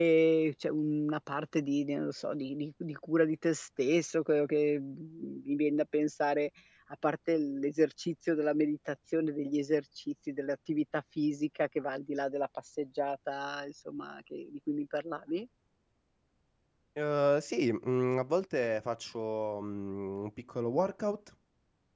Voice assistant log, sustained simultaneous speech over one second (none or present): none